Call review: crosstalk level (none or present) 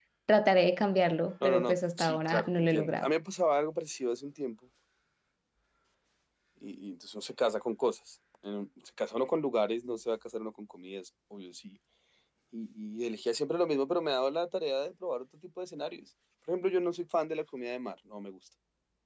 present